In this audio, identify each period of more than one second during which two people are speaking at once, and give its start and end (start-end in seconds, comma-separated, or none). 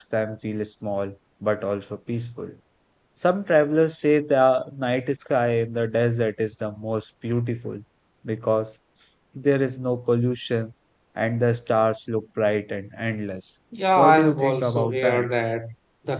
14.0-15.3